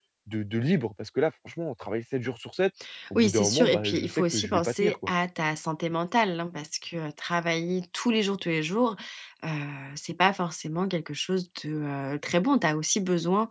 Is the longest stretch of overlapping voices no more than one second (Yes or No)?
No